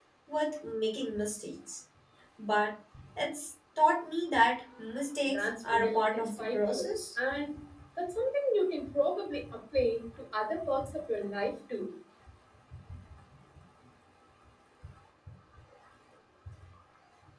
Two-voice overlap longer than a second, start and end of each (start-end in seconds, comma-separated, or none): 5.3-7.0